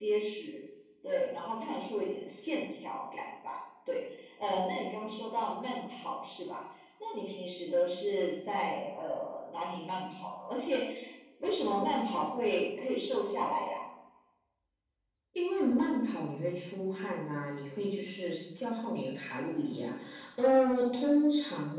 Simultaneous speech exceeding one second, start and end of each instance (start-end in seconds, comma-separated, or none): none